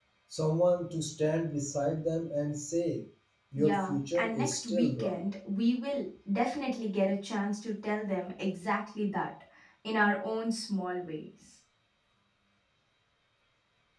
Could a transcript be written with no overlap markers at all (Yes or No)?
No